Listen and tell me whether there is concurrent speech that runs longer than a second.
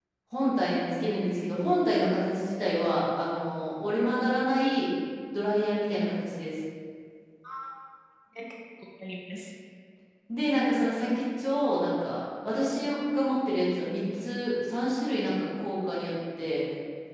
No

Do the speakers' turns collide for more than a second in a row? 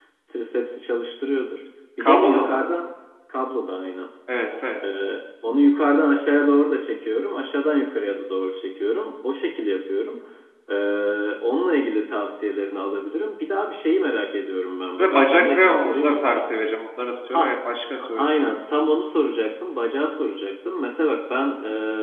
Yes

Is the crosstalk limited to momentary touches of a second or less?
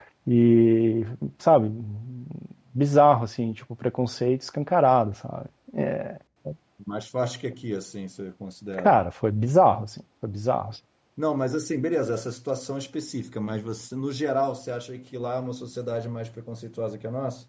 Yes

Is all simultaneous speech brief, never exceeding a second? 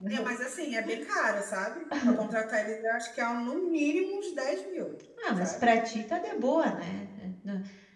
Yes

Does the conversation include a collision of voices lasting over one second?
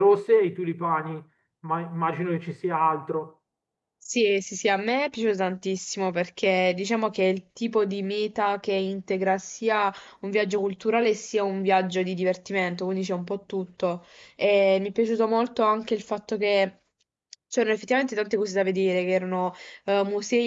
No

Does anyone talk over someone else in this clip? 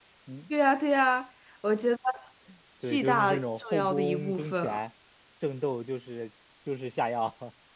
Yes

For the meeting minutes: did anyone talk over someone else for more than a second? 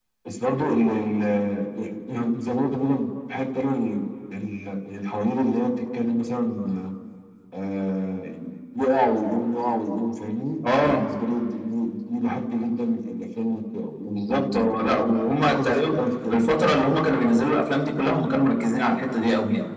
Yes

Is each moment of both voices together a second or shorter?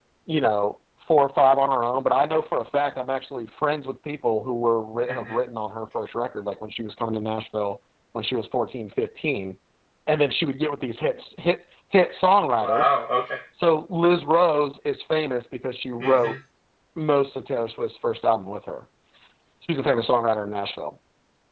Yes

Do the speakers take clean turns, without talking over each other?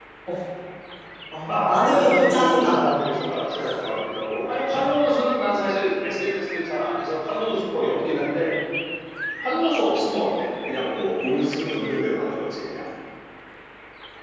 No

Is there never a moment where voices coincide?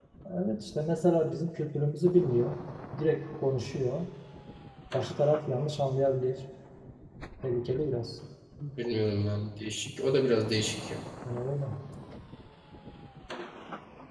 Yes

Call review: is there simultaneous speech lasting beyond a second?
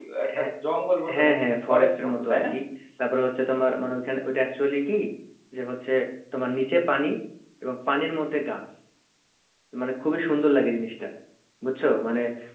Yes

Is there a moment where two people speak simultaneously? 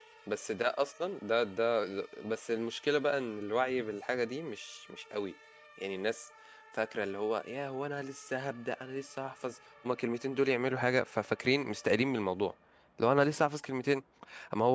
No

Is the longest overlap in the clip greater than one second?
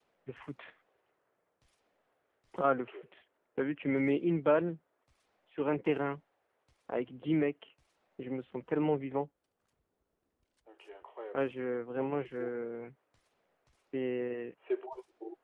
No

